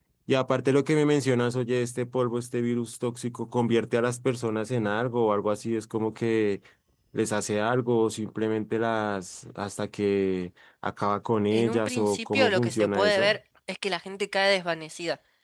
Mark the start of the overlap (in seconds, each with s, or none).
11.5 s